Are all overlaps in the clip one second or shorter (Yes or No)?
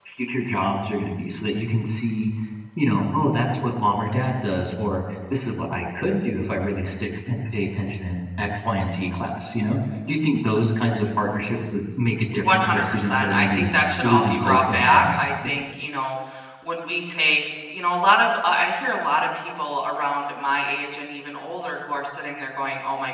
No